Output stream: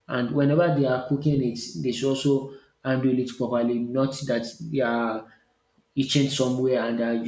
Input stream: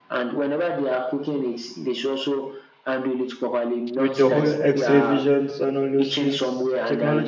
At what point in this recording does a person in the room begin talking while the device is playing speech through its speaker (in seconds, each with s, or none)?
4.0 s